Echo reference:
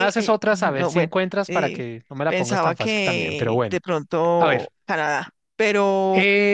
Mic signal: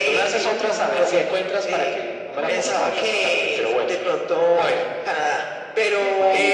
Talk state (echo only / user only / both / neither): both